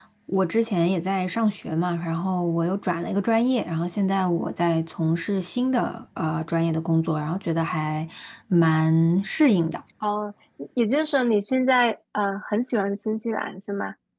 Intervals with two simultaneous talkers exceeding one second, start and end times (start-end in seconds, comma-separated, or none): none